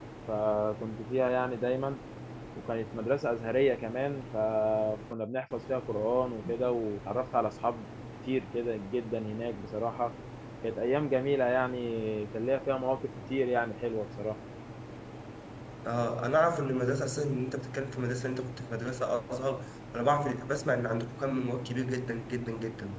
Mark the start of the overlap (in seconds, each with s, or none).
none